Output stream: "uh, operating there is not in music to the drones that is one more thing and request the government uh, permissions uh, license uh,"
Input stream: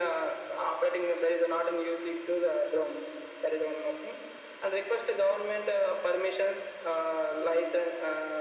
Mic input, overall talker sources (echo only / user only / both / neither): echo only